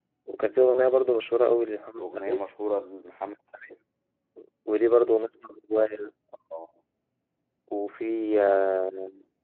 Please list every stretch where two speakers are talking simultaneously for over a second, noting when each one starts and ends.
none

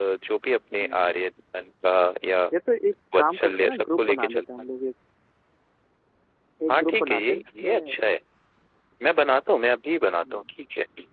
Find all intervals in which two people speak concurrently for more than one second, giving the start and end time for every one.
3.1-4.4, 6.7-7.9

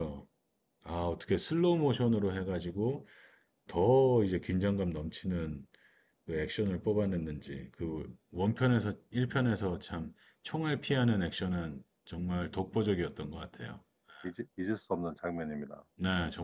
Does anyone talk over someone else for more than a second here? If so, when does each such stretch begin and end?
none

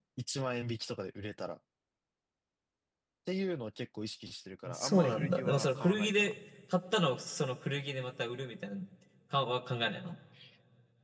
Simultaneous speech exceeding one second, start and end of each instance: 4.7-6.3

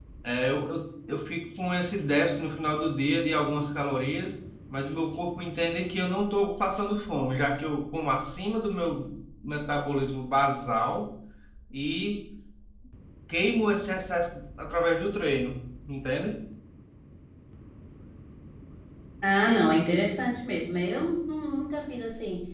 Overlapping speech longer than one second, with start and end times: none

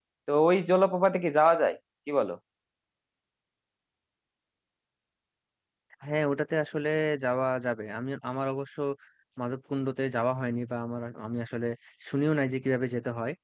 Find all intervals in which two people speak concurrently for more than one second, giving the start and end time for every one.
none

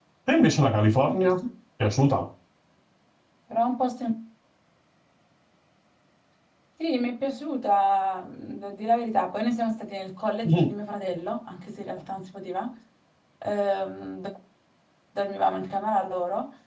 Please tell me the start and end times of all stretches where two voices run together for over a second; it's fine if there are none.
none

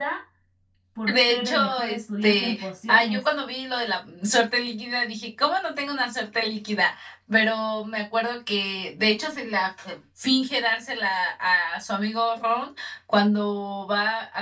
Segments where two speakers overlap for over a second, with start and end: 1.1-3.2

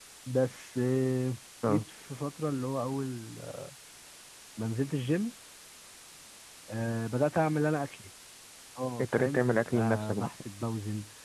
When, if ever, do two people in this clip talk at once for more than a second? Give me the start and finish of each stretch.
9.0-10.3

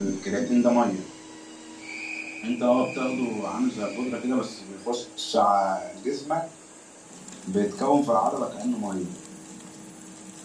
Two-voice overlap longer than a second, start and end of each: none

